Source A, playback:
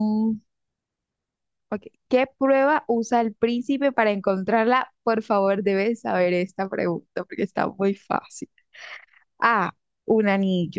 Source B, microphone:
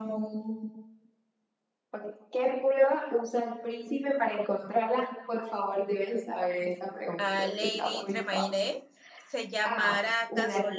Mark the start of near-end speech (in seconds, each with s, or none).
7.2 s